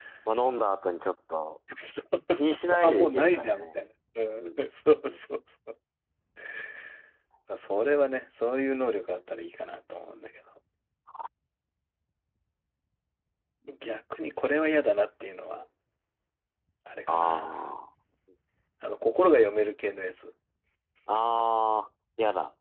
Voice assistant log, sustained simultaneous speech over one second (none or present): present